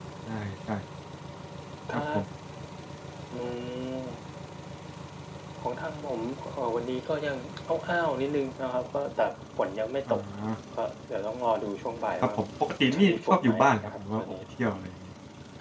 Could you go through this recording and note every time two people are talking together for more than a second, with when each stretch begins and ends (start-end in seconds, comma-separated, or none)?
12.9-14.3